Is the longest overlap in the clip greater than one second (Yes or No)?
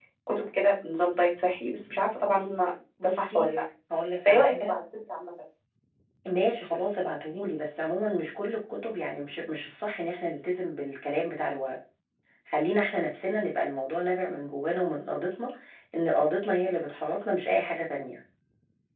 No